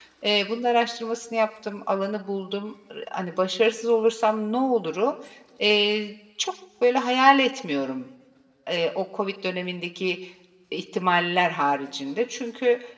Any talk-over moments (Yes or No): No